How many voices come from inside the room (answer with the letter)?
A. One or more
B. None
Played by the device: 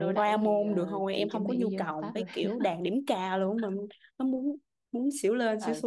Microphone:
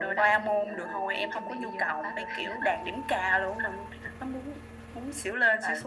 B